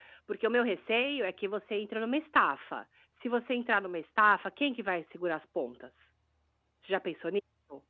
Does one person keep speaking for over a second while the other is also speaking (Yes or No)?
No